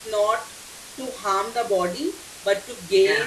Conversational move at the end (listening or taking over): listening